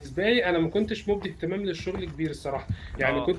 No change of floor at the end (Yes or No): Yes